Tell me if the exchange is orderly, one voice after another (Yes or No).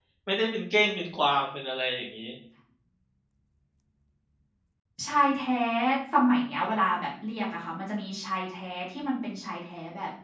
Yes